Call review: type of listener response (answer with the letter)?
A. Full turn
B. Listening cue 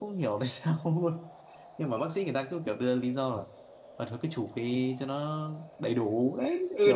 A